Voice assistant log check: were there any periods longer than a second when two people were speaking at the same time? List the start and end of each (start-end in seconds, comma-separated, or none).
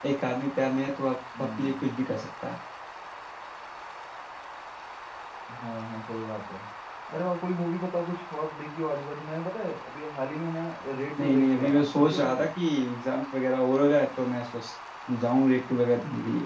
11.2-12.4